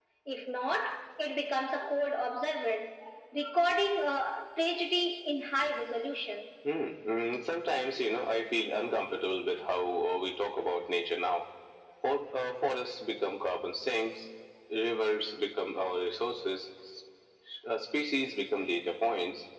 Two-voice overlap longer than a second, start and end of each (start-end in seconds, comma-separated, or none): none